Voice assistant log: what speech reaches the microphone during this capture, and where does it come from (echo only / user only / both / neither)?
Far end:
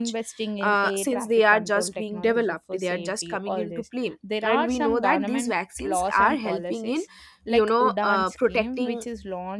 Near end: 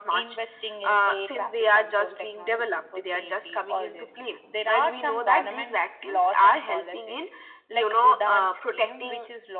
echo only